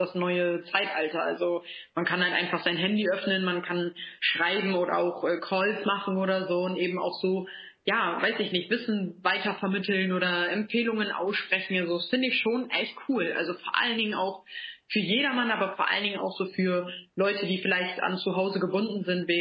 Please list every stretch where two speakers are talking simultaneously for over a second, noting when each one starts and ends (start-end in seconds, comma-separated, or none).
none